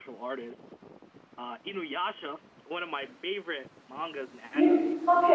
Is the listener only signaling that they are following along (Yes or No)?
No